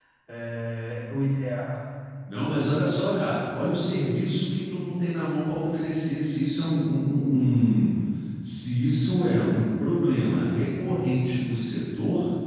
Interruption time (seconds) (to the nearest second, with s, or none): none